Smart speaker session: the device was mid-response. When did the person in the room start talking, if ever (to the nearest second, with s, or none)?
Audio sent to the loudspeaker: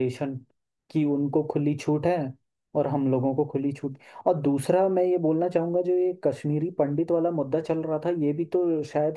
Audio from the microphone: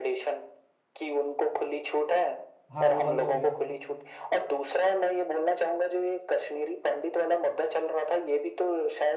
3 s